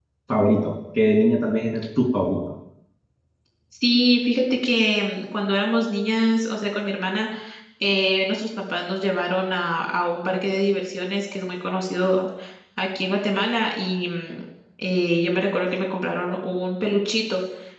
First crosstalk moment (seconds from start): none

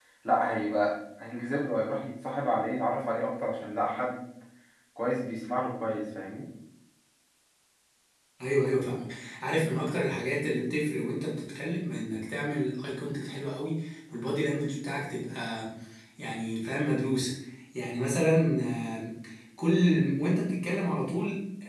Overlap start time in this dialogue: none

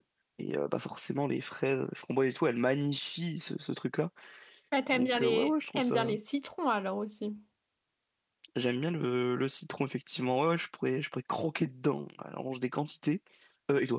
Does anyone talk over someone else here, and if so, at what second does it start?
4.9 s

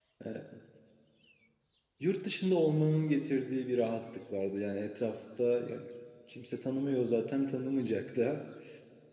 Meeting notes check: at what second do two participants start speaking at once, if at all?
none

